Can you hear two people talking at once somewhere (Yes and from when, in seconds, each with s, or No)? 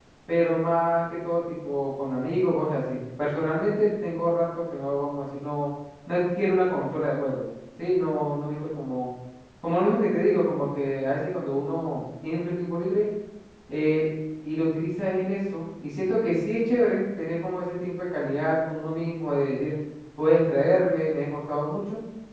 No